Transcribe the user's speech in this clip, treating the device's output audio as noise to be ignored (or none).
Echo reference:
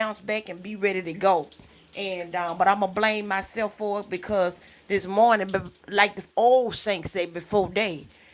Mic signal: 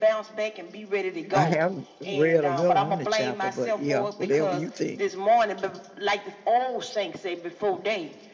I haven't read a little on the chapter, but yeah, whatever you think.